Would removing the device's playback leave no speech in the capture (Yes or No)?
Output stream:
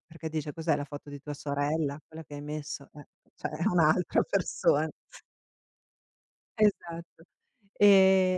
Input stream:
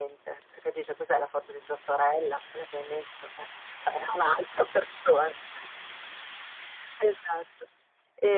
Yes